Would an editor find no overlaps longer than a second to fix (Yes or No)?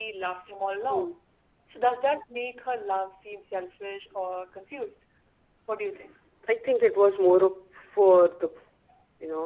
Yes